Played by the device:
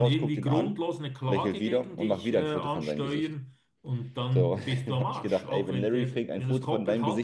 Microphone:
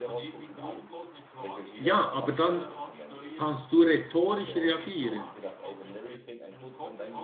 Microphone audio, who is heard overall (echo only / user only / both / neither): both